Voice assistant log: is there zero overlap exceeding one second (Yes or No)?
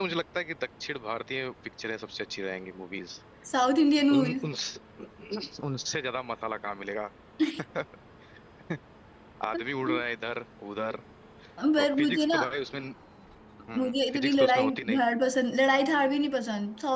No